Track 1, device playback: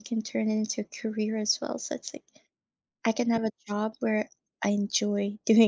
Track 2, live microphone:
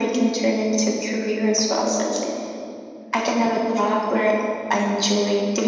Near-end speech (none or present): none